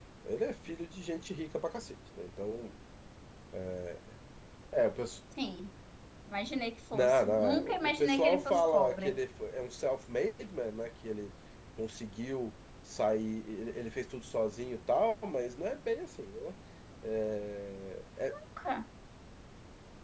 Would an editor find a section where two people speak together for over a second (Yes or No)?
Yes